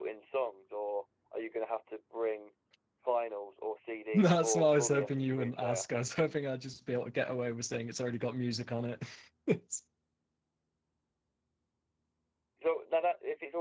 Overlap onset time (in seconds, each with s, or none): 4.1 s